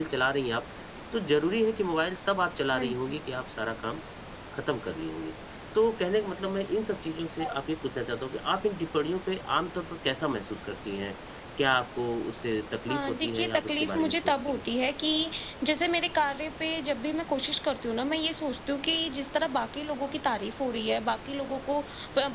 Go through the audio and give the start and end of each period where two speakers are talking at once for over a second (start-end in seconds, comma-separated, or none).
12.9-14.6